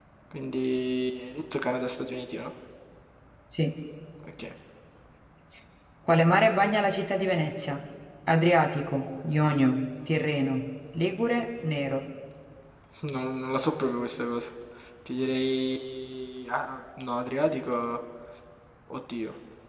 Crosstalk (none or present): none